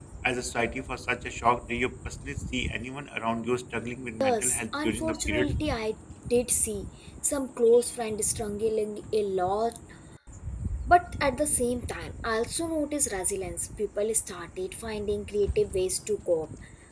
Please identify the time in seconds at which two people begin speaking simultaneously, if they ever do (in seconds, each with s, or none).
4.2 s